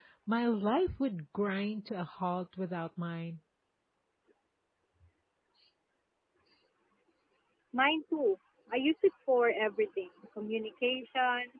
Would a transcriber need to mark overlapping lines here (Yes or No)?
No